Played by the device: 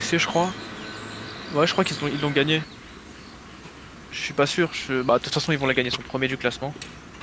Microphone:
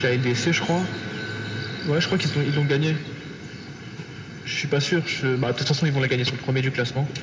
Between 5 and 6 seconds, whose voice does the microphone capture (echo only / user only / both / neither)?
echo only